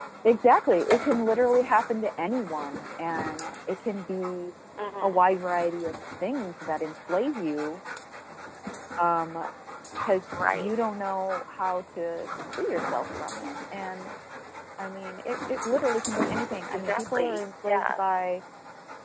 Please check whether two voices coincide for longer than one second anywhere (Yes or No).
Yes